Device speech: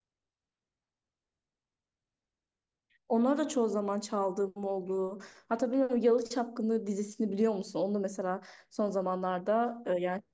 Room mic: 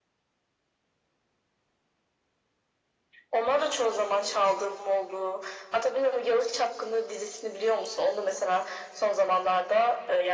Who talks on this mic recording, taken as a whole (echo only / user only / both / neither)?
echo only